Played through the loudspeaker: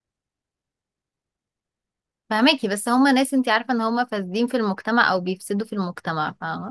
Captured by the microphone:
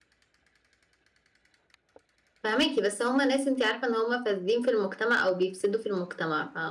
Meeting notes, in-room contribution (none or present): none